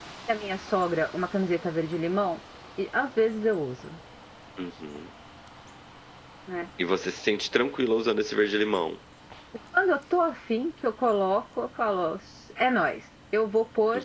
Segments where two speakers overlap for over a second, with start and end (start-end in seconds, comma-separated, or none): none